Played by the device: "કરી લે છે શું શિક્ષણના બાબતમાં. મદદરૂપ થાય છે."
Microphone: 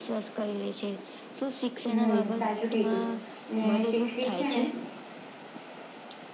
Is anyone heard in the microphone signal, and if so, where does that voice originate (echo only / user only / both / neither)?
both